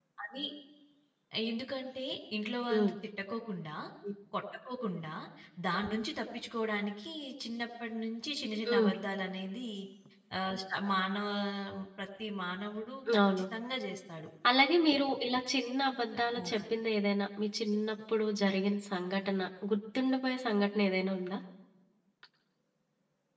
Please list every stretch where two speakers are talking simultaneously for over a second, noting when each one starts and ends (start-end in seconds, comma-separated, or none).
none